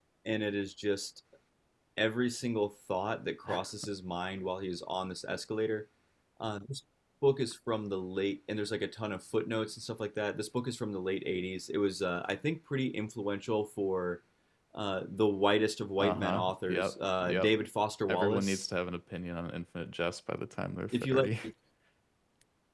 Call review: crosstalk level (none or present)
present